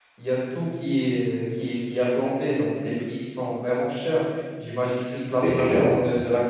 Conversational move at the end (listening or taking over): listening